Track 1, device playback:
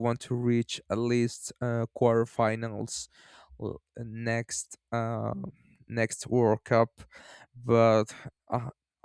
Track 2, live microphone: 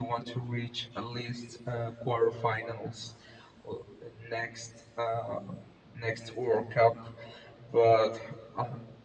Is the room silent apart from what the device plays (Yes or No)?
Yes